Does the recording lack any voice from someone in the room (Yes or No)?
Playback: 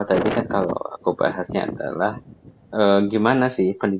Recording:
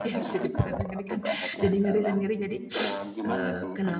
No